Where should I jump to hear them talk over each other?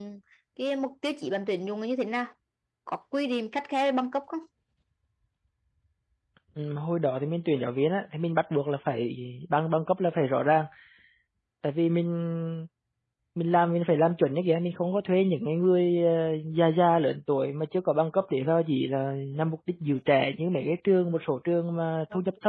none

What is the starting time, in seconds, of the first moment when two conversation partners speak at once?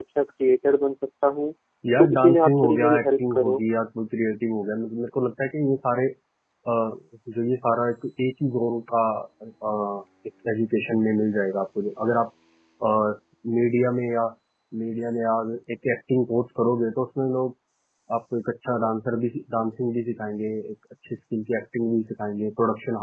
2 s

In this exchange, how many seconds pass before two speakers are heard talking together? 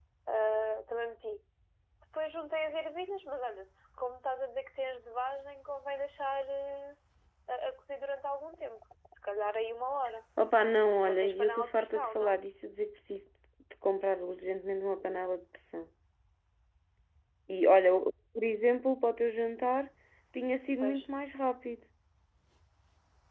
11 s

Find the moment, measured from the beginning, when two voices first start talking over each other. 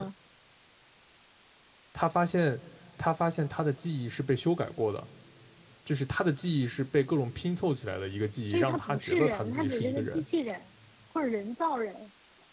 8 s

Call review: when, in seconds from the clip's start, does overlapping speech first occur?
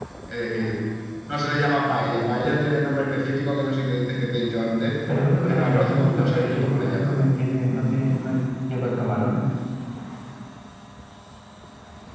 5 s

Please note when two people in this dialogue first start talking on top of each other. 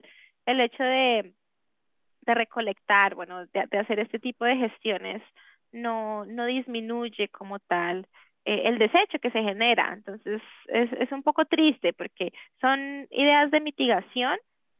none

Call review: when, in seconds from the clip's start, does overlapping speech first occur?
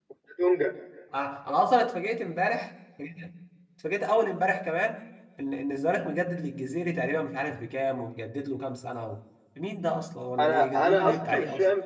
10 s

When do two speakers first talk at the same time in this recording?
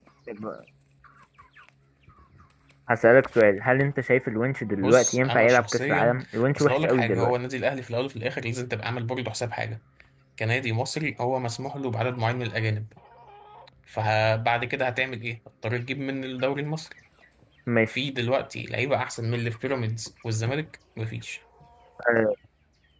5 s

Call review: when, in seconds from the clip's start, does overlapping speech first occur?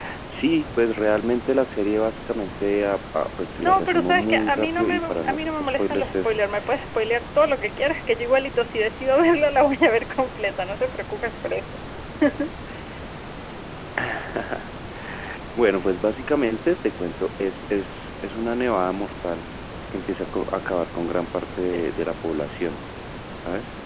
4 s

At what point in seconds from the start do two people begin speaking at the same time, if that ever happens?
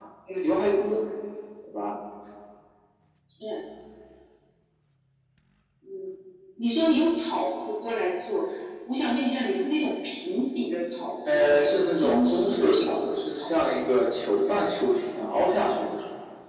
11 s

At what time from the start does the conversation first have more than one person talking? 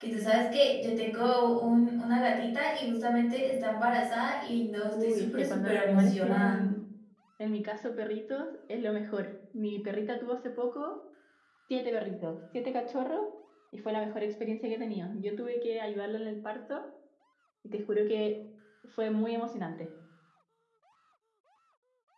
5 s

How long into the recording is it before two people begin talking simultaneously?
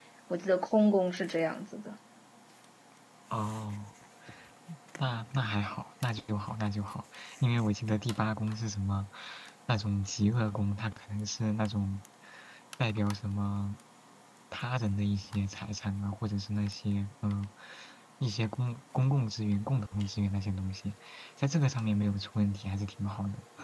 none

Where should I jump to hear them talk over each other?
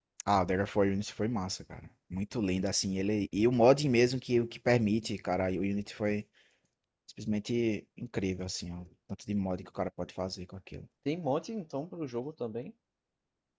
none

